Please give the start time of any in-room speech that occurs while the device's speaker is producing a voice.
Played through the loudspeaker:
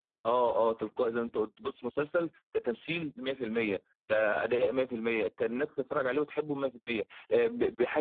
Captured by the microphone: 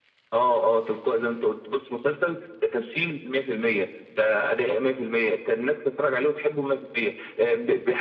none

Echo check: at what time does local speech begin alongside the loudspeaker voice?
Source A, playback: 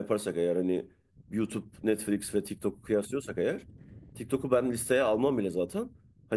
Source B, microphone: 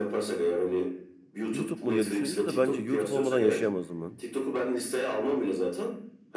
1.5 s

